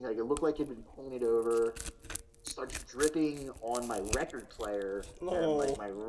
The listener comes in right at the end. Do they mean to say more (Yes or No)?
No